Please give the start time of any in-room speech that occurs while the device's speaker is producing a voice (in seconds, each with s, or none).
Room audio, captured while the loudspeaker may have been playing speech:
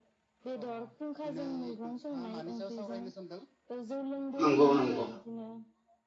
4.4 s